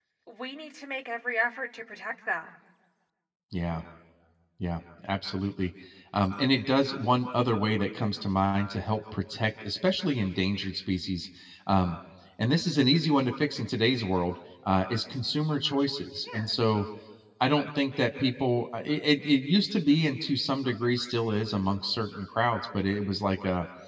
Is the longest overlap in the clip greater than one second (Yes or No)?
No